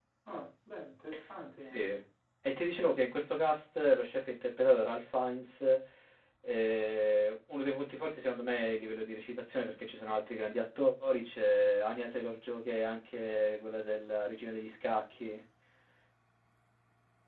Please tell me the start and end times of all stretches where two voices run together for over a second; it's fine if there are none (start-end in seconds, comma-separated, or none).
none